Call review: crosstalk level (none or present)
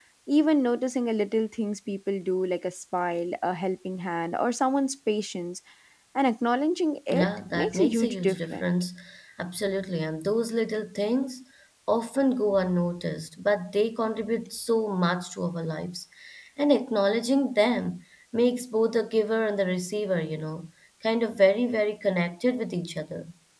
present